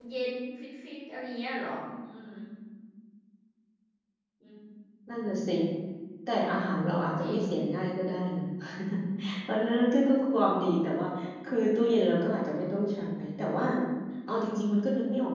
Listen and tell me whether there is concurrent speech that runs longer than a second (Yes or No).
No